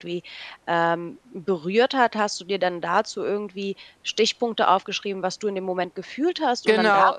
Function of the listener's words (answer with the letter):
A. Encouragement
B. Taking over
B